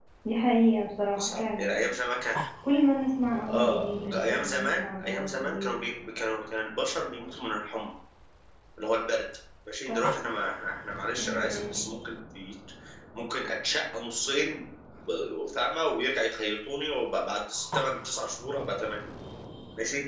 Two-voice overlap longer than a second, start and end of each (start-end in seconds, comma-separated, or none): 3.4-5.8